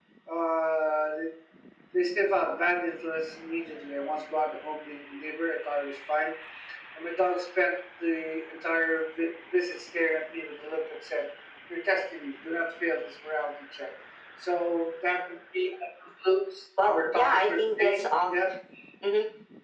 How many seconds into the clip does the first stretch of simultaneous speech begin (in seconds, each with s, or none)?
16.8 s